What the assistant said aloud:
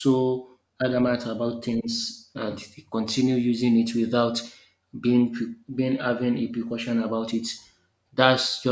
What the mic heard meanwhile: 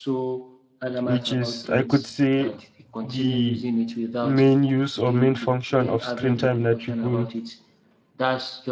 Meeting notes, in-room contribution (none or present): present